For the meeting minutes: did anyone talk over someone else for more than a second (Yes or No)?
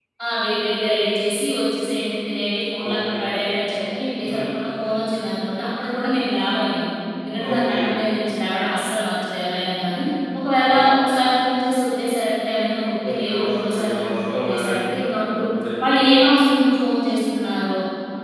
Yes